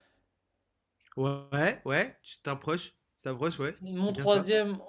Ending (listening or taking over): taking over